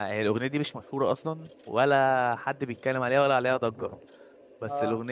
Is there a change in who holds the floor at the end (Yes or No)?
No